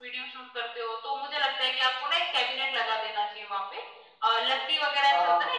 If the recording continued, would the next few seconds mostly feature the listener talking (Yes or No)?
No